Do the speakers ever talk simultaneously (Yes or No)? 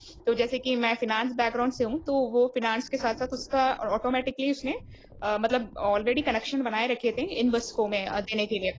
No